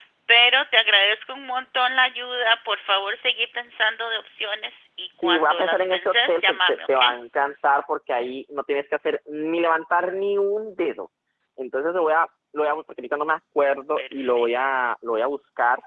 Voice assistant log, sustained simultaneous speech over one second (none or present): present